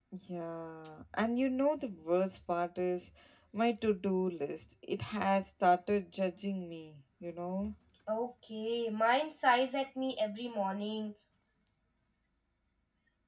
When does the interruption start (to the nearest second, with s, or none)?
none